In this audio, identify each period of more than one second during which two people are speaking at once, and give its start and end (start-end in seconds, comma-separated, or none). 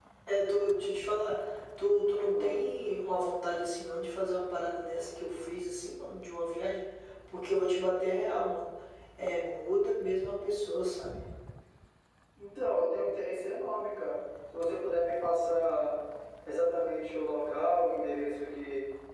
none